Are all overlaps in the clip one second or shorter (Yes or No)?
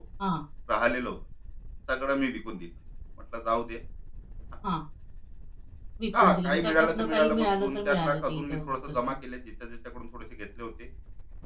No